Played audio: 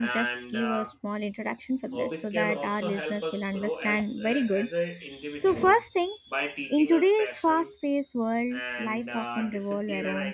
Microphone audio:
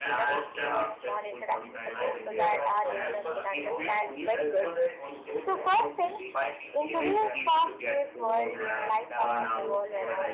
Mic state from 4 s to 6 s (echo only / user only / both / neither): both